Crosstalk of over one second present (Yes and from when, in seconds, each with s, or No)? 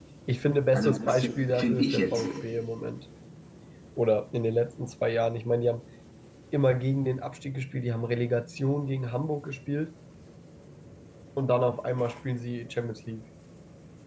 Yes, from 0.7 s